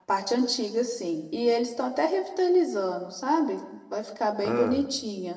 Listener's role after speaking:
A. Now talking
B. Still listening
B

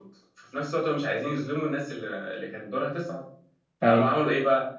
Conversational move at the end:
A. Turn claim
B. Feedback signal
B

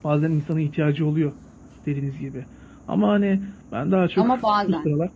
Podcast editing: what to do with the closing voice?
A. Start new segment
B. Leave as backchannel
B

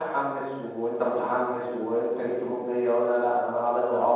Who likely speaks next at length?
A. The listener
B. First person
A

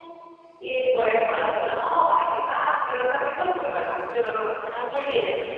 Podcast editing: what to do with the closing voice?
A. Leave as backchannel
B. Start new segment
B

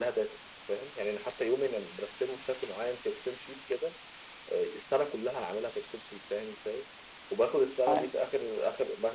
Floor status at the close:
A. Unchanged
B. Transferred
A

